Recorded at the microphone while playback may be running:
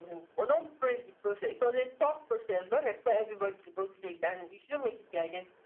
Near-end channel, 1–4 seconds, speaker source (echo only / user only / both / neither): echo only